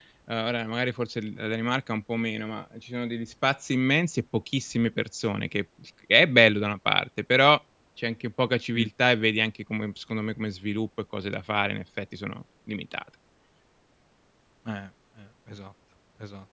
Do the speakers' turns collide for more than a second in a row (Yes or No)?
No